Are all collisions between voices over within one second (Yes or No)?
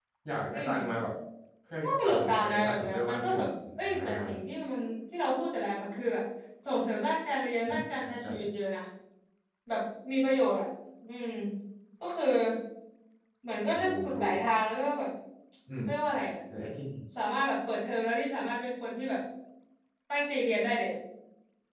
No